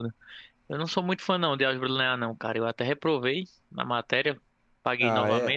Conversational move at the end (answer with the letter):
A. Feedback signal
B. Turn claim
B